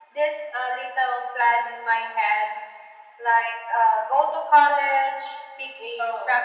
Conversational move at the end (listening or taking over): listening